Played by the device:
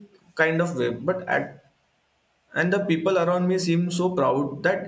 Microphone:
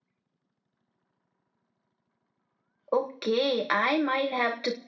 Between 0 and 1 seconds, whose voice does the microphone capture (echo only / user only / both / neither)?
neither